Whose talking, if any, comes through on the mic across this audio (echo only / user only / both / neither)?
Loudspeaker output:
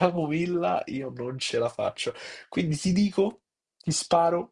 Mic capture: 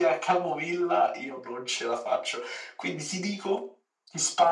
echo only